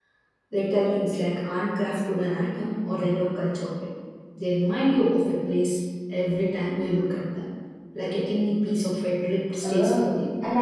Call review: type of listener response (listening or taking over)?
taking over